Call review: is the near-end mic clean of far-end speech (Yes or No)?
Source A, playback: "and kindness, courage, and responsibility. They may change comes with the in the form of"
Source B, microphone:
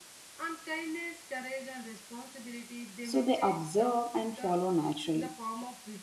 No